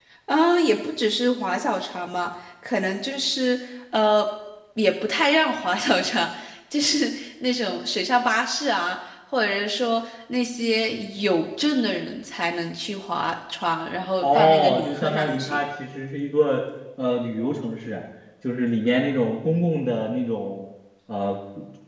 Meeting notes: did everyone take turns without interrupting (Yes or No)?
No